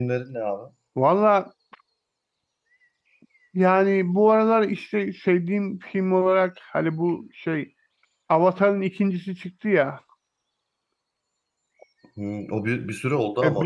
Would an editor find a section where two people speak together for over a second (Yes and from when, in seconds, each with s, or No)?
No